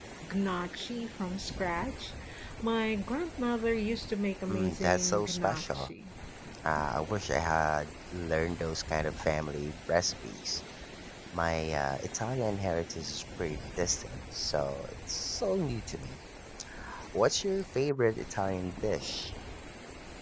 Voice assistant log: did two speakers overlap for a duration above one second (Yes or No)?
Yes